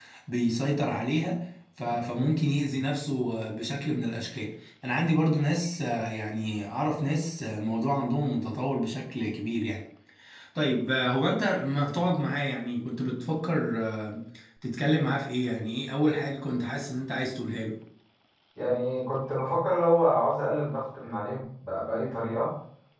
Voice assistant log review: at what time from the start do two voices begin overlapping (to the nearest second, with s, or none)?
none